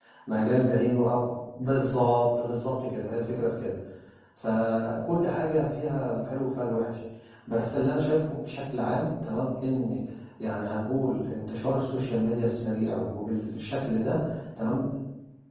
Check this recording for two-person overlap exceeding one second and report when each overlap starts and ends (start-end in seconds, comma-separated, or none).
none